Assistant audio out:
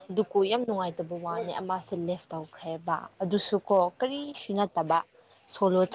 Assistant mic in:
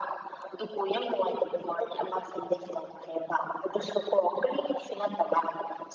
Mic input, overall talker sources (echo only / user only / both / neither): echo only